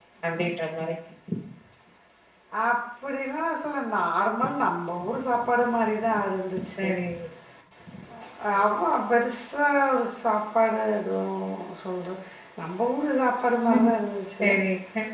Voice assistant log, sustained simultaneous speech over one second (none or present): none